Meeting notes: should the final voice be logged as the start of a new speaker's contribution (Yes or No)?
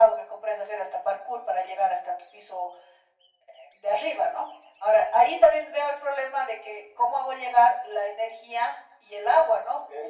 Yes